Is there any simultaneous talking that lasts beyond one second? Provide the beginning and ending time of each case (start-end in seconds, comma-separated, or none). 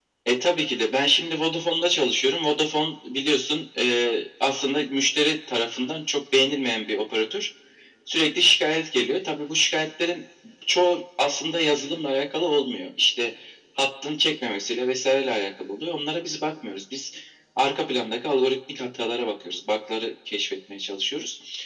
none